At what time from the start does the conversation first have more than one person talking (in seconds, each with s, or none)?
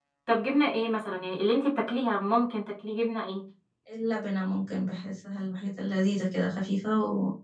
none